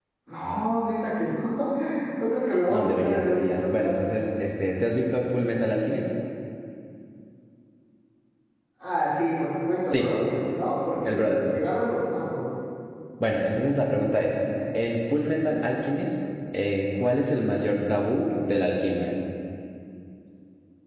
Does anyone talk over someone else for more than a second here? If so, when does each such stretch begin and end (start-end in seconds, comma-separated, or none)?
2.7-4.2